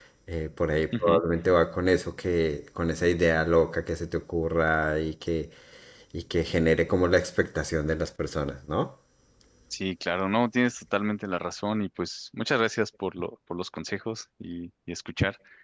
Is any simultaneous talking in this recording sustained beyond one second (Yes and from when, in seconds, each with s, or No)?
No